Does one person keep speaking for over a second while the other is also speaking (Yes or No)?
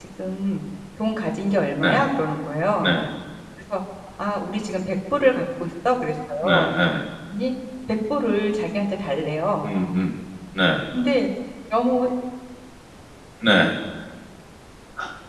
No